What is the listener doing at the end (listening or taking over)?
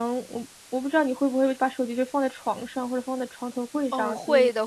taking over